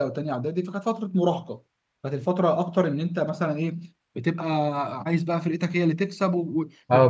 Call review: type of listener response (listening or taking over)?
taking over